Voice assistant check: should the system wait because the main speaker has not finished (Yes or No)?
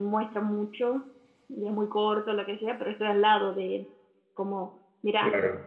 Yes